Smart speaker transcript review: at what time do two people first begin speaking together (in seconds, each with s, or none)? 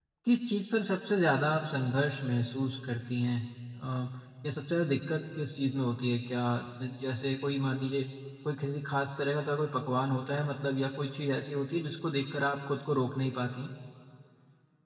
none